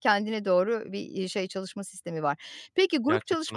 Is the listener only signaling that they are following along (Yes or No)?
Yes